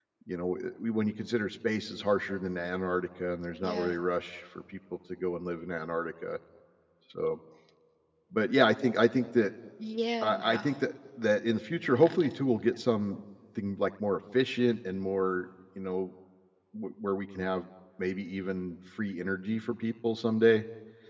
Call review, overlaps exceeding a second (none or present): none